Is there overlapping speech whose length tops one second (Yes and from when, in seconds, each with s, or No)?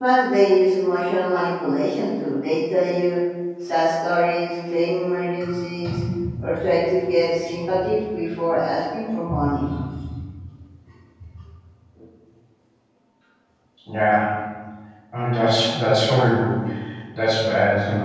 No